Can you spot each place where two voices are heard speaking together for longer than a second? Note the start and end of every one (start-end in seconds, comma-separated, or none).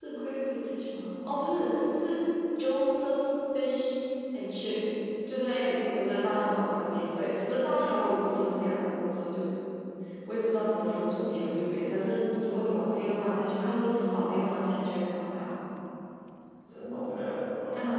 none